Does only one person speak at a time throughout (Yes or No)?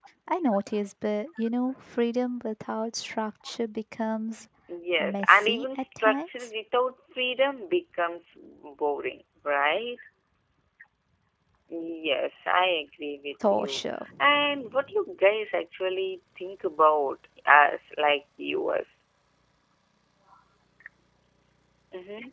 No